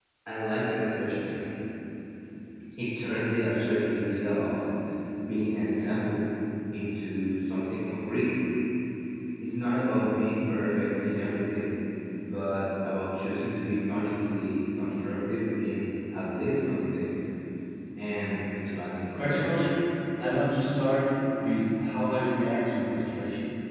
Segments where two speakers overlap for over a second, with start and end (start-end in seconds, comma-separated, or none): none